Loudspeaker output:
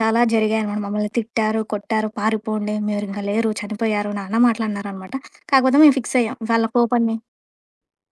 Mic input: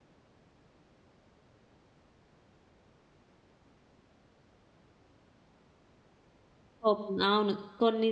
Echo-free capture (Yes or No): Yes